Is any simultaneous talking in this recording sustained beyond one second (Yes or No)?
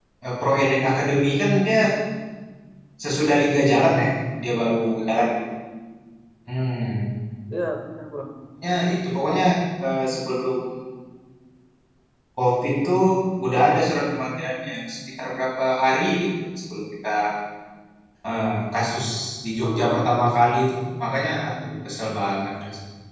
No